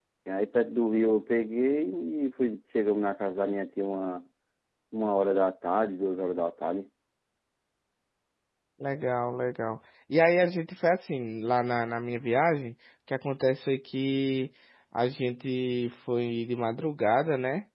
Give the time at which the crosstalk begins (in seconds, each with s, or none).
none